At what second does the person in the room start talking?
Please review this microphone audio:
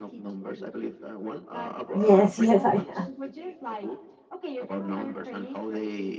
2 s

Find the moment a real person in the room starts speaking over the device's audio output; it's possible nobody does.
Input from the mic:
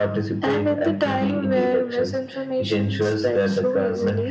none

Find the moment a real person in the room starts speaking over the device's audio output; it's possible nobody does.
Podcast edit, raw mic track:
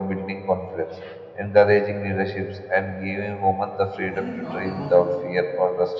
4 s

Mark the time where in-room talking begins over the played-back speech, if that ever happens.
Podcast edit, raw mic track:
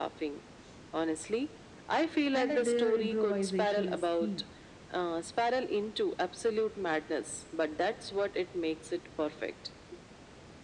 2 s

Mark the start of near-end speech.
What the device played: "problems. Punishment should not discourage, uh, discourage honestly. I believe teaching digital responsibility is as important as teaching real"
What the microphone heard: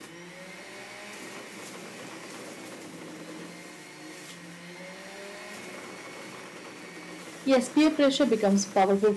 7 s

